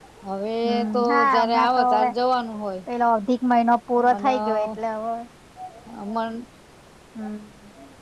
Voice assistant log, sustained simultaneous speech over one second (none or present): present